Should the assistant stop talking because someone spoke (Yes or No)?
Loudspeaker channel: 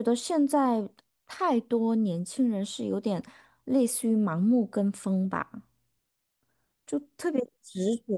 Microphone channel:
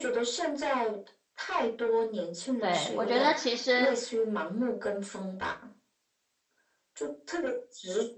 Yes